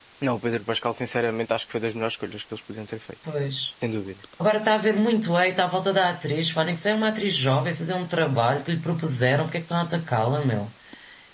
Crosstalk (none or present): none